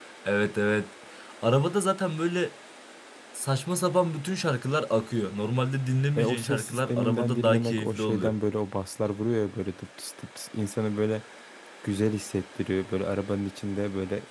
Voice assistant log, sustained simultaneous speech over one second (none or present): present